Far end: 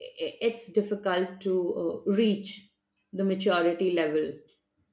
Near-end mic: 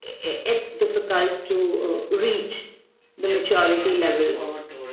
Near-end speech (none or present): present